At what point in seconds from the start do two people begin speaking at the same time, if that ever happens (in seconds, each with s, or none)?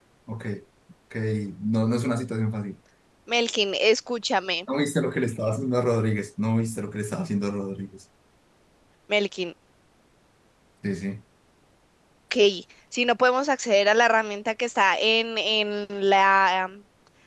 none